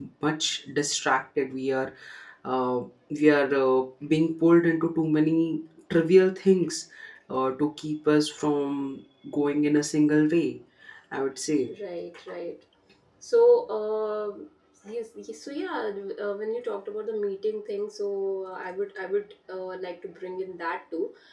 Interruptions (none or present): none